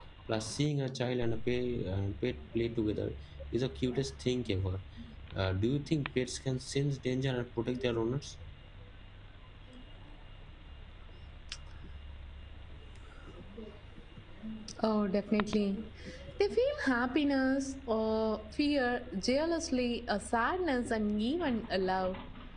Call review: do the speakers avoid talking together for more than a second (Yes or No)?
Yes